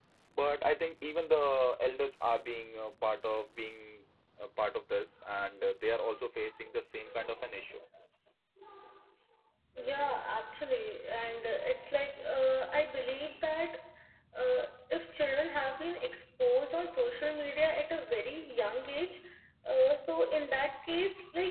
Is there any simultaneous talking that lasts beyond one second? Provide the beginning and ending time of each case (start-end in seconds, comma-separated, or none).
none